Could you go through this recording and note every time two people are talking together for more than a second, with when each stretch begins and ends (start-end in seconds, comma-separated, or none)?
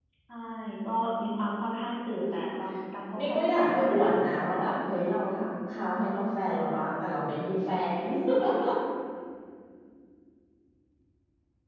3.2-4.7